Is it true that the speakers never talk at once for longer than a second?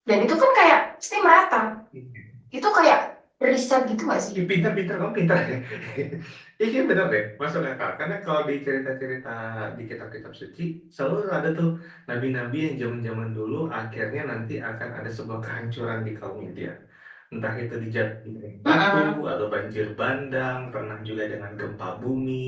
Yes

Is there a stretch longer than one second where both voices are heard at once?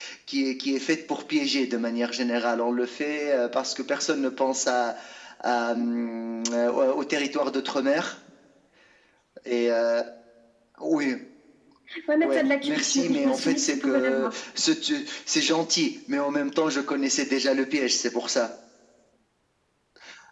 Yes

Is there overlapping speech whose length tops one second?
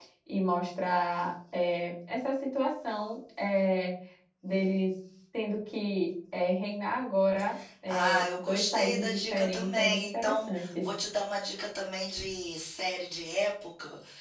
Yes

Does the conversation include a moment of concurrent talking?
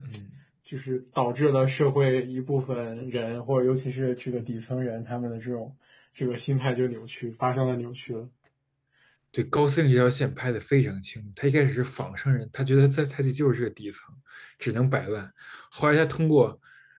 No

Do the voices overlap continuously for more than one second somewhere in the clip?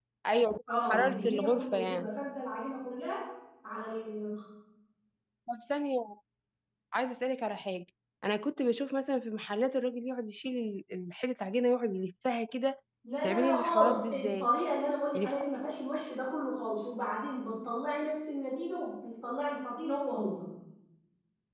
Yes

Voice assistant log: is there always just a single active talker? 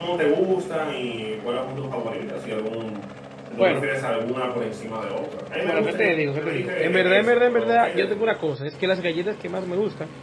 No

